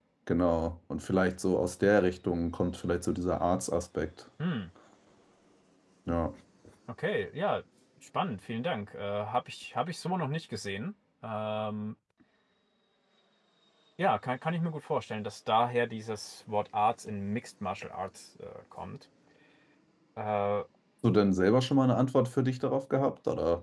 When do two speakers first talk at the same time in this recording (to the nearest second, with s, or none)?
none